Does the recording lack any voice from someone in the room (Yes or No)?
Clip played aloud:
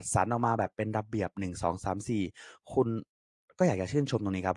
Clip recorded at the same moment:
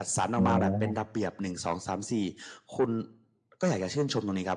No